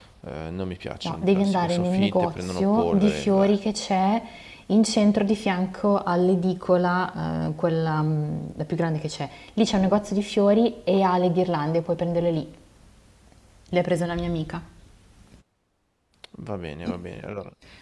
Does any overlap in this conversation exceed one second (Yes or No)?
Yes